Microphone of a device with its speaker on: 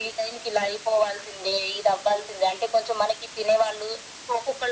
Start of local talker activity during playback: none

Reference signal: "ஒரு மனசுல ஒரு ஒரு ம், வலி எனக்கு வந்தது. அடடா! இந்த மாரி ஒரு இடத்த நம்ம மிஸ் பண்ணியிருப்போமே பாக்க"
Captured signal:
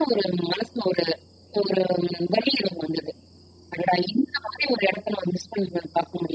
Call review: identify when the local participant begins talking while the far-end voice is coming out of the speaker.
none

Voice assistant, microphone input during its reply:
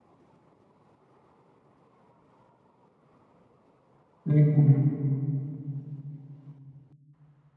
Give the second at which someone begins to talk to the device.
4.3 s

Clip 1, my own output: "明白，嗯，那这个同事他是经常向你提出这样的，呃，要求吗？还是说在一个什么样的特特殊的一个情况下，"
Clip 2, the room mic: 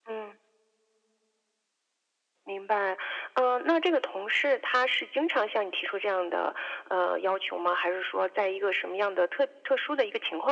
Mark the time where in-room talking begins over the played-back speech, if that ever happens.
none

